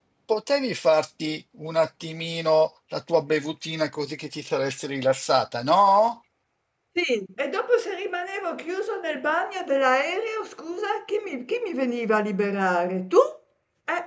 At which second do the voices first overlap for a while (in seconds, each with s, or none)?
none